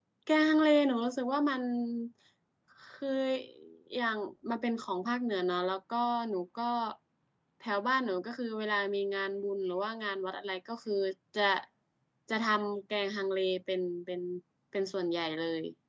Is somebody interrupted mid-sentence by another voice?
No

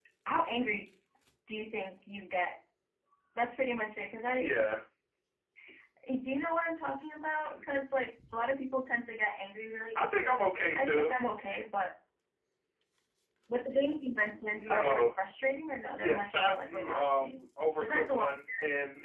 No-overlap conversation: No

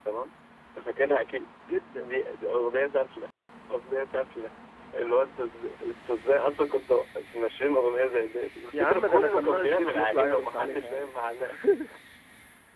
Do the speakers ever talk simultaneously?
Yes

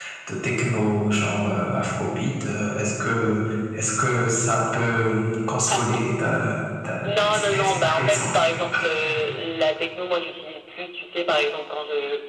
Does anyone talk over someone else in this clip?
Yes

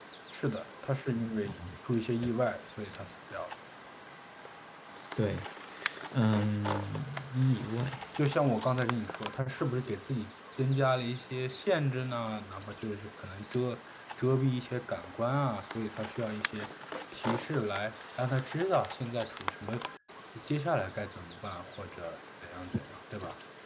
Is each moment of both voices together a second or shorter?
Yes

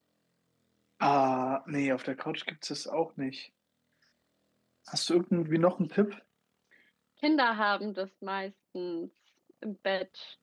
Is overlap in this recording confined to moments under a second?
Yes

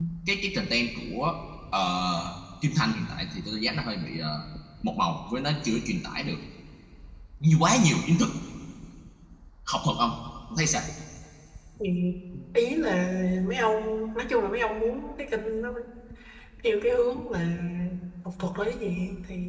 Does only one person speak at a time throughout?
Yes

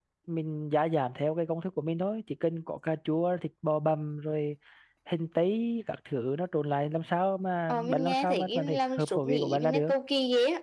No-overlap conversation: No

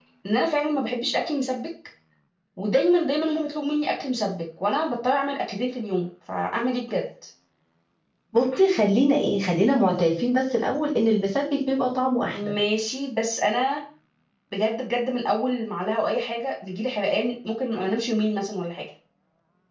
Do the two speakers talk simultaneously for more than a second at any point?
No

